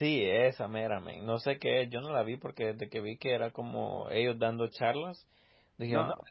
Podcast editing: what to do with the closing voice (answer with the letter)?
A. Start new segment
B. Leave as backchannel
B